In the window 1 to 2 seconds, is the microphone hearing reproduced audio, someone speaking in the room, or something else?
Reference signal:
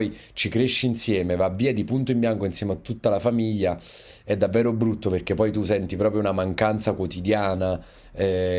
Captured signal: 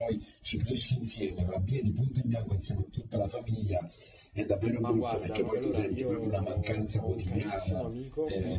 echo only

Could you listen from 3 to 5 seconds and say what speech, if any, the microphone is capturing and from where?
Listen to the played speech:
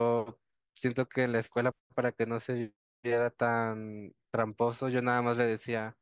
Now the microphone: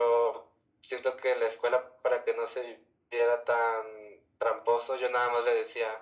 echo only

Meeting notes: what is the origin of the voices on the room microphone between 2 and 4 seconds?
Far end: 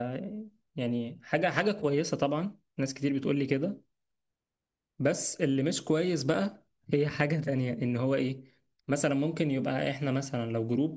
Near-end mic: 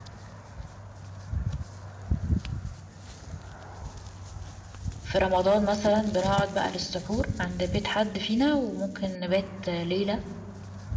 neither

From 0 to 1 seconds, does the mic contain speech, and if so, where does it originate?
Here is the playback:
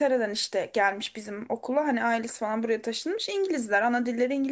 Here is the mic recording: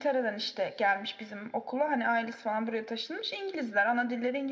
echo only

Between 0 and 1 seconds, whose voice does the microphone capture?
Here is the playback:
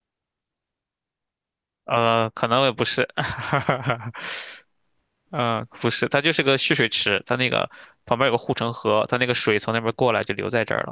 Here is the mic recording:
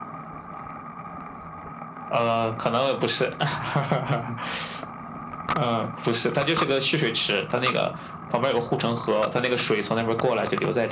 neither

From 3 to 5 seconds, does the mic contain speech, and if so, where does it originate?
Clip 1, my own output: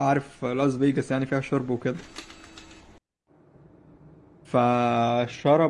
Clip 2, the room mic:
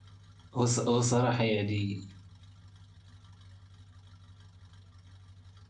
neither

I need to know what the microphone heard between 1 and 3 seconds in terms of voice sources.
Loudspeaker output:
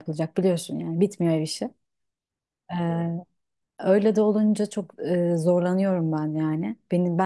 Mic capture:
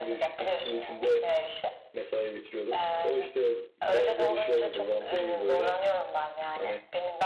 both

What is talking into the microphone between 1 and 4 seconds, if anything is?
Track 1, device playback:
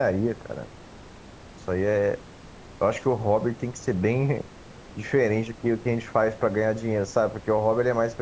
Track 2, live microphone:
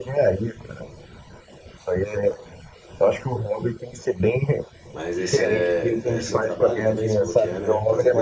echo only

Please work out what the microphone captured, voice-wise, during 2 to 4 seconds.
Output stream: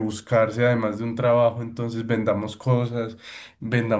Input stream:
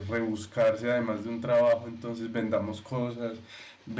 echo only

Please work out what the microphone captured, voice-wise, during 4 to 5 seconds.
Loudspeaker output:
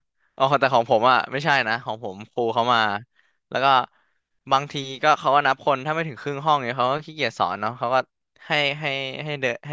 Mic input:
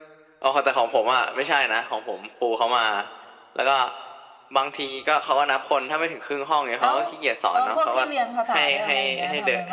echo only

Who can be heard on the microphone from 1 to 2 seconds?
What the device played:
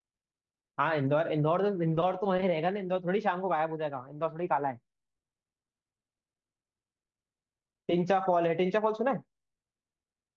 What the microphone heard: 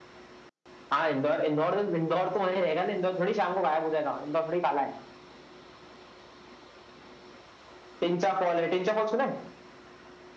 echo only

